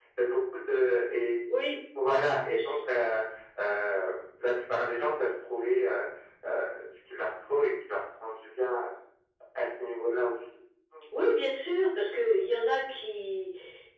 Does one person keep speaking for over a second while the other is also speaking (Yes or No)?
No